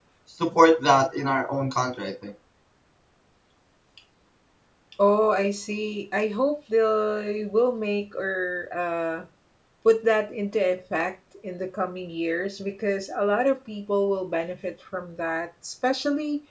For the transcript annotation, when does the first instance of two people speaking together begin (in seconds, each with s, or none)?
none